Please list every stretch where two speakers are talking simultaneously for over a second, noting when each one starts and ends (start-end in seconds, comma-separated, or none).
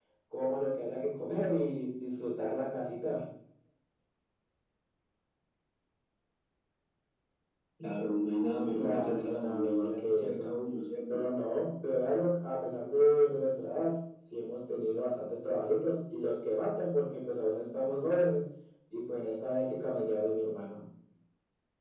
8.7-10.5